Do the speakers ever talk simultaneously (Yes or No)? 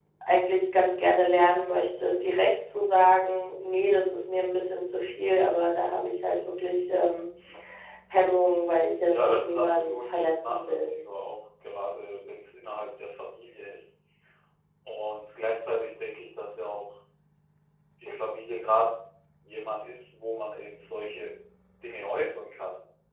Yes